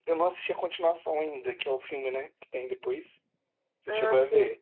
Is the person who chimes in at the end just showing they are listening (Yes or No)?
No